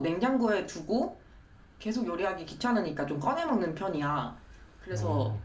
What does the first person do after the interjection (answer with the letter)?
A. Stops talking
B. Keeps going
B